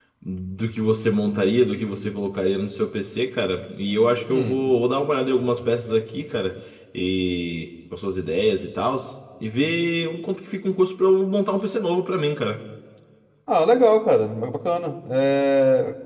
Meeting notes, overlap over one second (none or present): none